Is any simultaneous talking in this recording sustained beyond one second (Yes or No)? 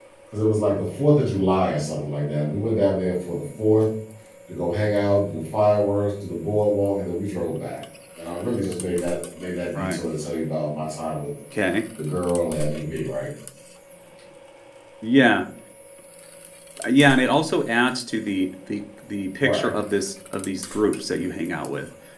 No